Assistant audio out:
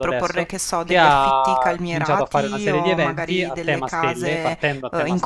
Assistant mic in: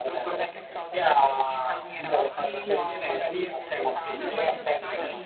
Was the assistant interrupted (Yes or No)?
Yes